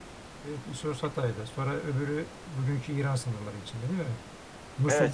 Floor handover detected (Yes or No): Yes